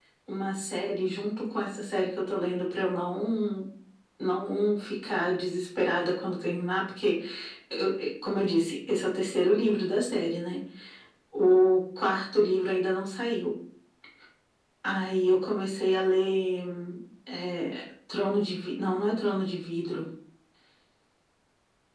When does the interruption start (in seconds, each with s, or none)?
none